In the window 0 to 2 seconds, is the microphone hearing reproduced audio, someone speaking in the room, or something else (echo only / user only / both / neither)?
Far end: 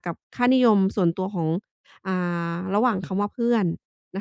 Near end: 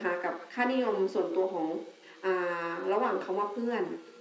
echo only